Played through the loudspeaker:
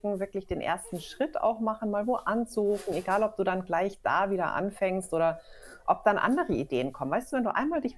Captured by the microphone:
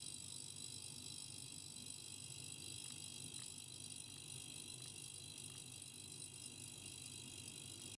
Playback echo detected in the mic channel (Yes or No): No